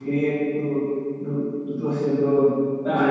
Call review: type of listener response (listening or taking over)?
taking over